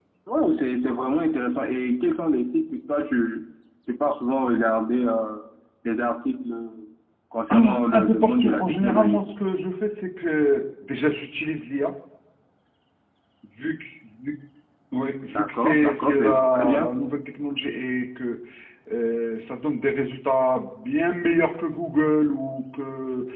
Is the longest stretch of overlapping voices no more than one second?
No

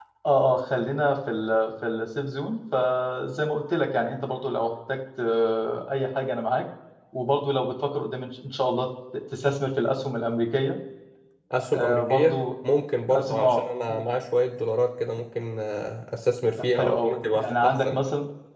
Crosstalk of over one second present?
Yes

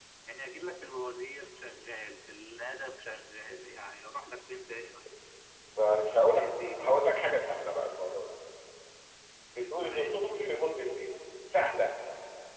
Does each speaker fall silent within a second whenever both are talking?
Yes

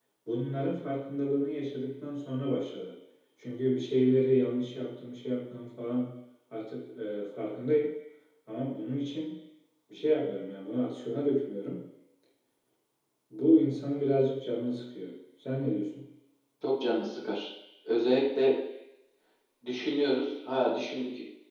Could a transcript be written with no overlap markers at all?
Yes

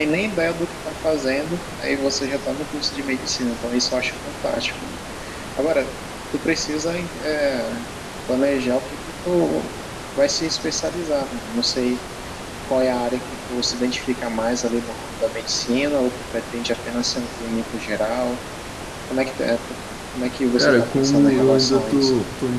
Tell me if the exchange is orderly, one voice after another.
No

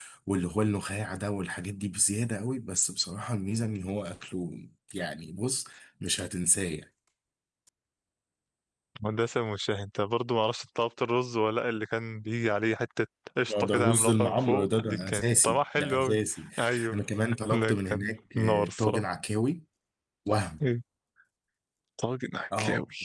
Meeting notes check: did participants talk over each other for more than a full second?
Yes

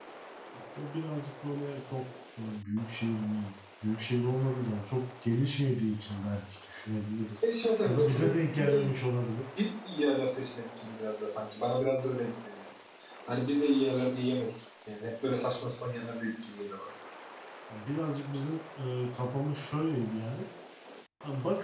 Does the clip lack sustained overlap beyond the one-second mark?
Yes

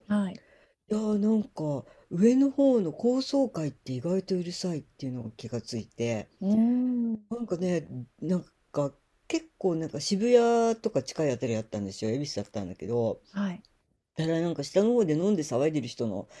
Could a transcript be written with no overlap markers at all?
Yes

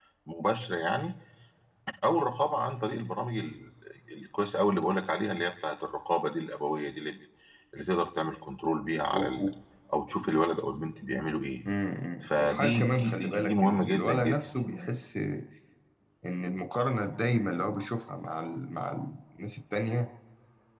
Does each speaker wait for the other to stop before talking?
No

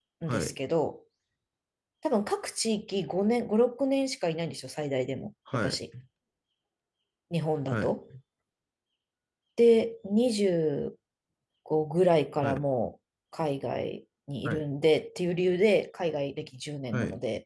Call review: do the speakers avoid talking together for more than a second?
Yes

